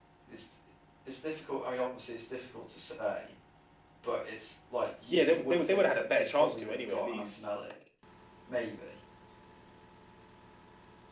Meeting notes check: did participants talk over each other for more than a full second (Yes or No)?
Yes